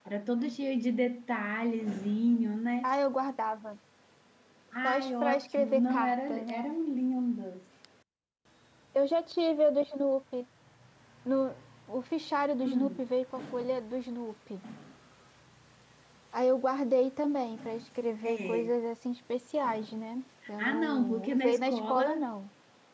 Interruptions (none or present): present